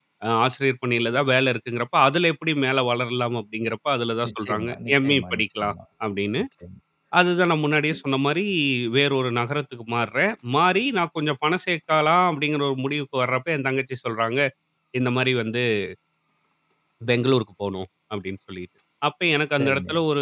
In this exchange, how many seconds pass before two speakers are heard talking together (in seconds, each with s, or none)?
4.2 s